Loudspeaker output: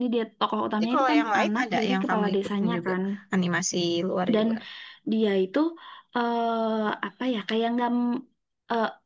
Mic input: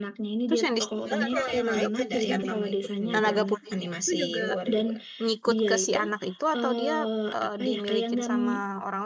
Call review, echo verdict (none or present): present